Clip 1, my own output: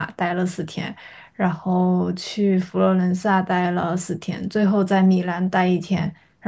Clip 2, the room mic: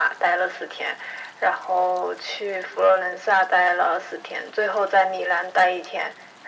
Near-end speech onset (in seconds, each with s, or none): none